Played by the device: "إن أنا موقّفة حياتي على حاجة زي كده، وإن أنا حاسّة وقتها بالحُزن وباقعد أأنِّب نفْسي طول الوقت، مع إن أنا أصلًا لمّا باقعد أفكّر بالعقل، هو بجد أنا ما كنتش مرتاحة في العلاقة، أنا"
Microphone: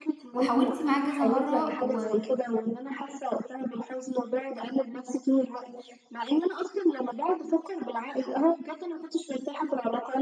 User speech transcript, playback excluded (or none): وحاولتِ معاه كذا مرّة، و